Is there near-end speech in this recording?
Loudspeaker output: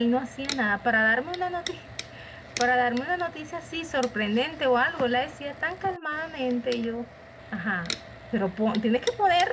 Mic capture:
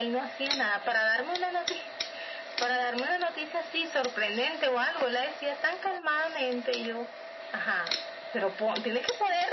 No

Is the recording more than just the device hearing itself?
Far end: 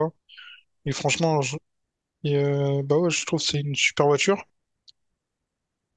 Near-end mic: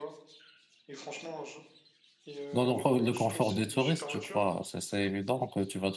Yes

